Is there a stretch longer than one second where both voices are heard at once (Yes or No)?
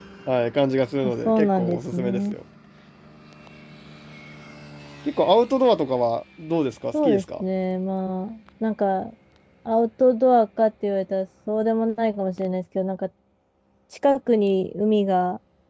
Yes